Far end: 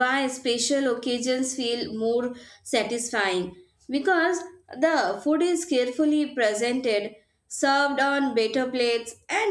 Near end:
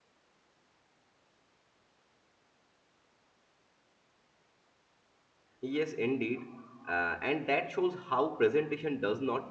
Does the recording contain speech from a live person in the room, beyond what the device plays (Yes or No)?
Yes